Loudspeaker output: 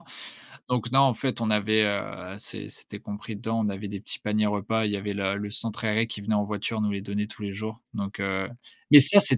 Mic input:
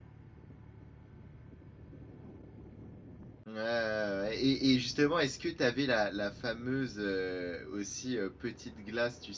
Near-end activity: present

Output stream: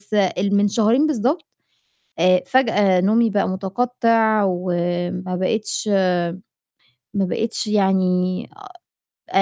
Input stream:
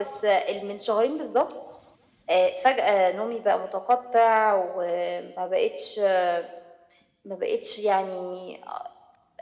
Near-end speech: none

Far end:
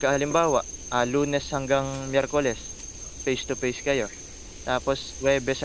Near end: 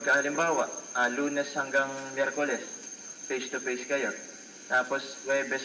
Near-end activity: none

